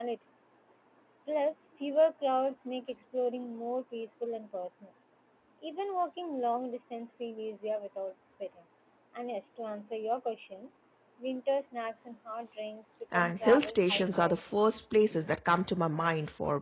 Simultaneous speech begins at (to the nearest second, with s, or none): 13 s